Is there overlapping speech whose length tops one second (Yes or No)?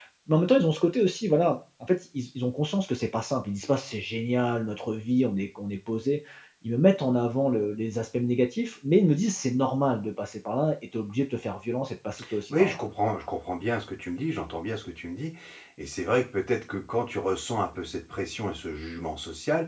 No